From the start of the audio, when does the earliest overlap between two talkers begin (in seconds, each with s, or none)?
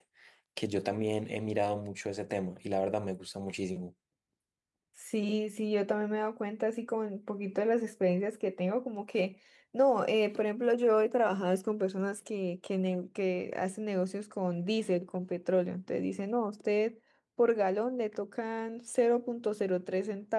none